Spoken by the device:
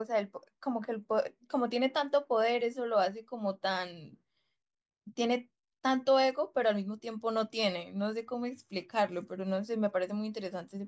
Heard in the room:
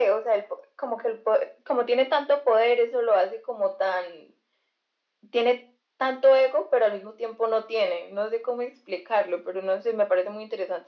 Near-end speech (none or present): none